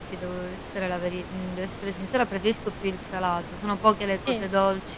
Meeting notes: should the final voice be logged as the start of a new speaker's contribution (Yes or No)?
No